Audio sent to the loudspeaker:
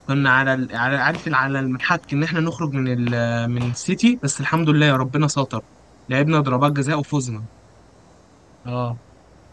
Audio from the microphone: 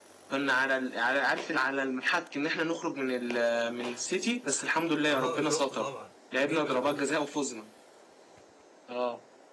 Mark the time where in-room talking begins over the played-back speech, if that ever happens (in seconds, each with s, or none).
5.1 s